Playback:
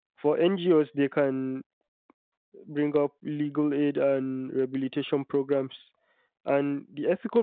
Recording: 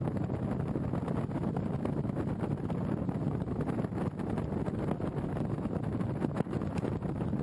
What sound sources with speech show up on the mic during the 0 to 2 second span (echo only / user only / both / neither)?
neither